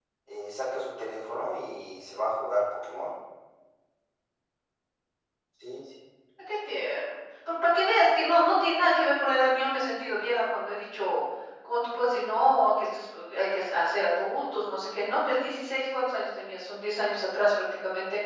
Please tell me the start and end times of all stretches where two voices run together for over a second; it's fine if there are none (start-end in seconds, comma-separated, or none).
none